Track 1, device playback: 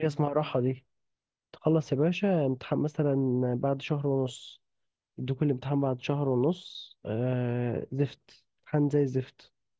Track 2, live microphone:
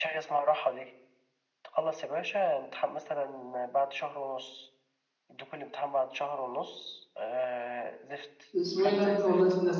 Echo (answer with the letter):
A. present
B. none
A